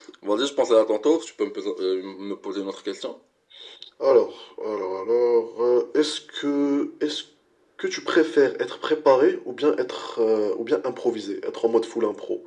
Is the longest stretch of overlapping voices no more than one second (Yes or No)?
Yes